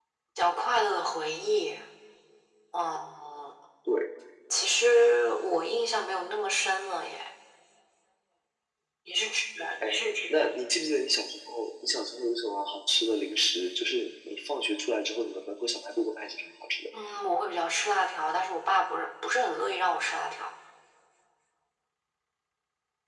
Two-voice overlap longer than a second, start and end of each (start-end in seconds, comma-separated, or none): none